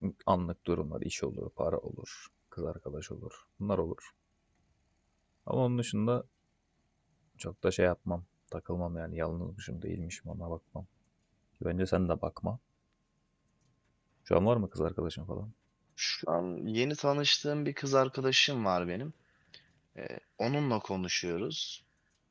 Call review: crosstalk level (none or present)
none